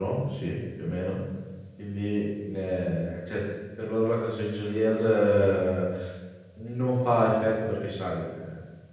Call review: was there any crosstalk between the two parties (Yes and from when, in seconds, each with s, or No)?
No